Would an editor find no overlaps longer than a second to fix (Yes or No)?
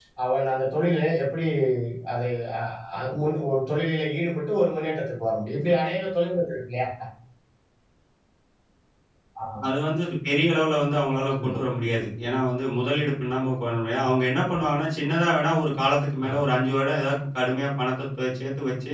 Yes